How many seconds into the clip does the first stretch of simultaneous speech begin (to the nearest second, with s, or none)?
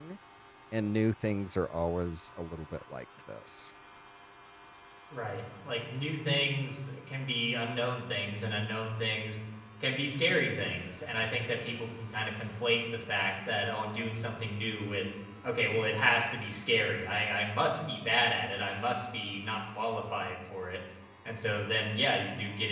none